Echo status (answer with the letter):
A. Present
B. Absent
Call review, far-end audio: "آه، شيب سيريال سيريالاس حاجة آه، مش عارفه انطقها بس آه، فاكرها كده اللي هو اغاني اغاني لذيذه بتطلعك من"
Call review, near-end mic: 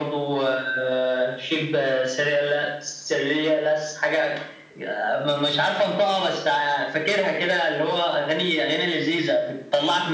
A